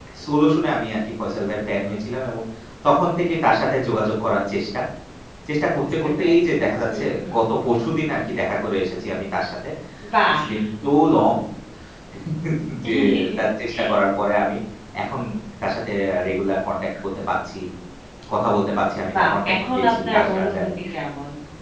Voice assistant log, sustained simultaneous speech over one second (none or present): present